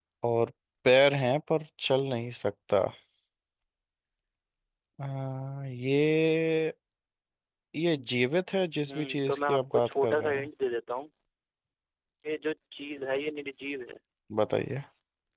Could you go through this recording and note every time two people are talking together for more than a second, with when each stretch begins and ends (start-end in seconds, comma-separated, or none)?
8.8-10.5